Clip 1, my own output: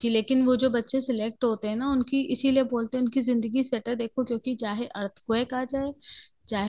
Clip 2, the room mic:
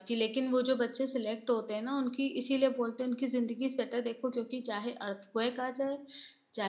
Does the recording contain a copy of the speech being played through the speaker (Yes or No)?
Yes